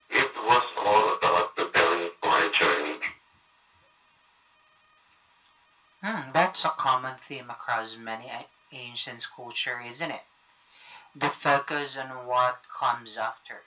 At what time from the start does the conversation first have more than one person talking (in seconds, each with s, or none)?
none